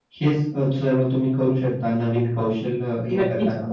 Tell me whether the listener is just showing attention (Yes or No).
No